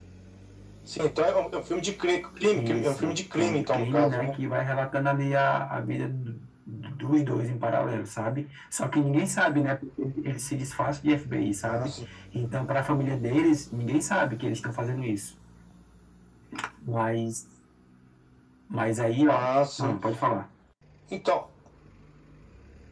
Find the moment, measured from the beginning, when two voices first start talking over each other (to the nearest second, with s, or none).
3 s